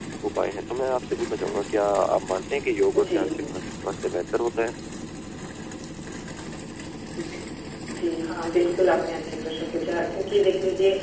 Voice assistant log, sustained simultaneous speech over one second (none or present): none